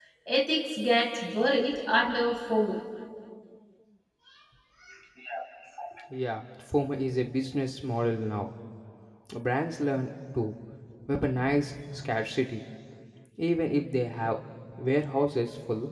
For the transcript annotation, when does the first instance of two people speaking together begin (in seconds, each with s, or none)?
none